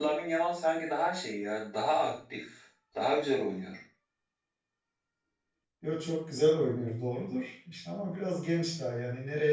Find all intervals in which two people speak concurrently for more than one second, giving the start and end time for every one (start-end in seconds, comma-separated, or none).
none